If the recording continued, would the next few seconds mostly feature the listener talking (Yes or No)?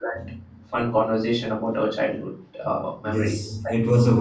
Yes